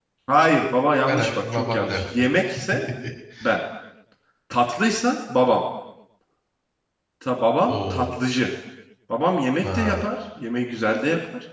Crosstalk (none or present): present